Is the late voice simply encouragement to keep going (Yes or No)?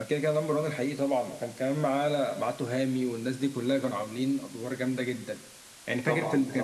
Yes